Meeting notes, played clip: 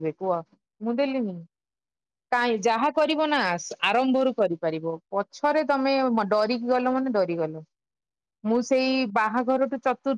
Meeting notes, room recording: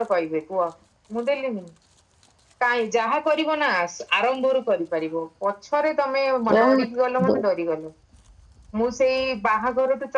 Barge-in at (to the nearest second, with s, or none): 7 s